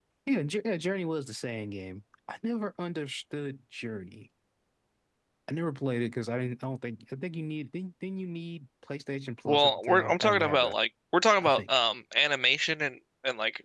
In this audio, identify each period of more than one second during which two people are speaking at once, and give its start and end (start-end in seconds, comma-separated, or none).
9.4-10.8